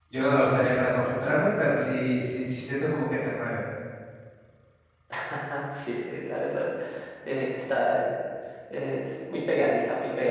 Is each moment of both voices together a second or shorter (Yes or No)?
Yes